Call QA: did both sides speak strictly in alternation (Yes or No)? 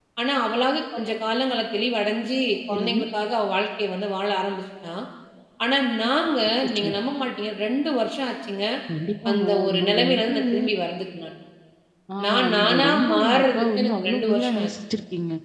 No